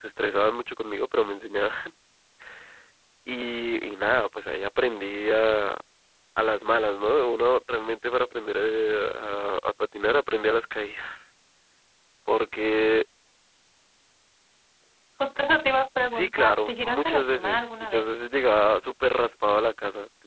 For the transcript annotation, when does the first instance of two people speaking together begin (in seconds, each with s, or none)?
16.1 s